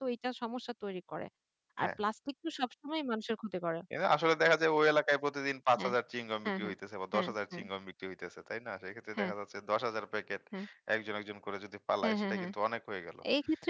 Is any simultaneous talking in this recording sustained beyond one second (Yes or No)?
No